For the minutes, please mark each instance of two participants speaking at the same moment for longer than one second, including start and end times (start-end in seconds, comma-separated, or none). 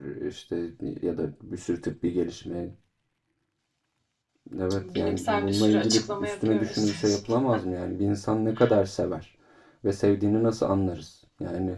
5.0-7.2